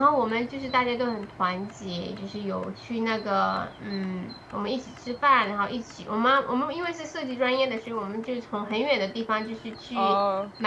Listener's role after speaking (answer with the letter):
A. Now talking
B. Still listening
B